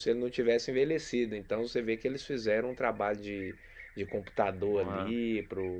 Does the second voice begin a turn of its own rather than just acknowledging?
No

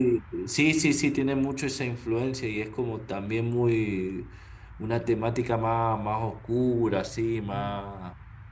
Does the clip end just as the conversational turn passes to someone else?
No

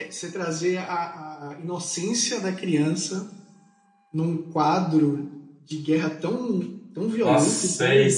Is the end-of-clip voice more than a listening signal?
Yes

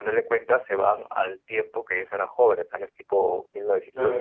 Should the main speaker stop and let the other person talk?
Yes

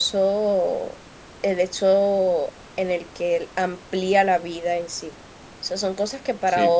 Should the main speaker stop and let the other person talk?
No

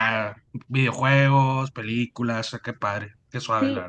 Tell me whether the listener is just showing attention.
No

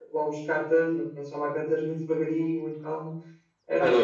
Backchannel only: No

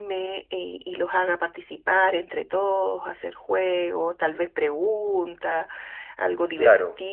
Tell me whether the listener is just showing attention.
Yes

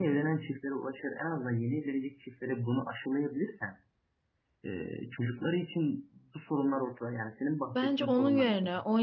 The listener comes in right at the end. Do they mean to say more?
Yes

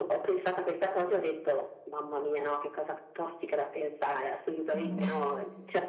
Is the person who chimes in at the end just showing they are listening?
Yes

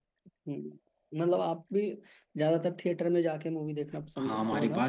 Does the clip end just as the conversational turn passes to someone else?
Yes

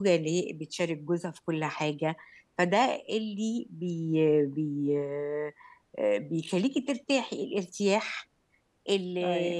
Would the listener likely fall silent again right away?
Yes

